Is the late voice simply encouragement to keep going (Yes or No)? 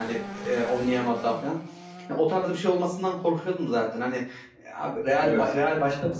Yes